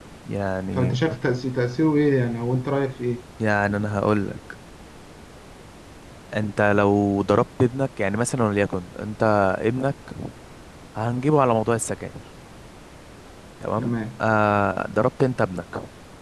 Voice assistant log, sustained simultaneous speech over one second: none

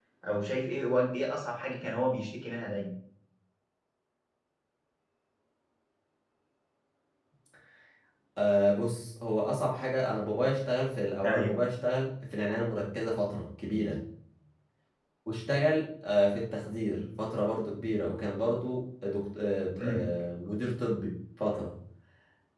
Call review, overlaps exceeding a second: none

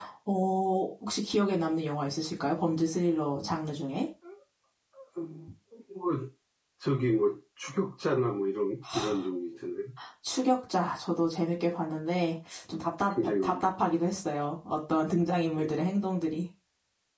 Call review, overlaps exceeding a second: none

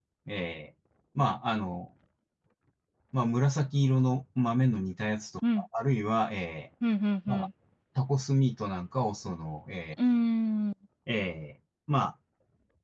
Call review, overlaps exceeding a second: none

